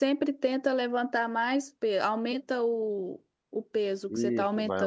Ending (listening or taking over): taking over